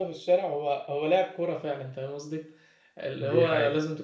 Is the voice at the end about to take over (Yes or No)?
No